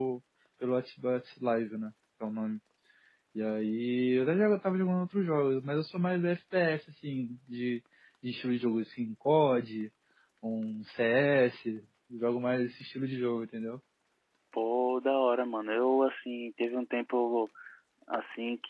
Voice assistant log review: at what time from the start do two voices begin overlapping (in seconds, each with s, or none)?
none